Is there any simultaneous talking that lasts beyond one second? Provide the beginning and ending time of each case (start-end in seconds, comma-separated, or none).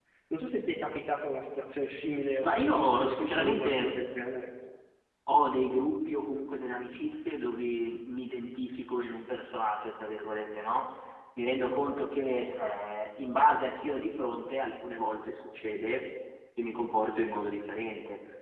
2.4-4.0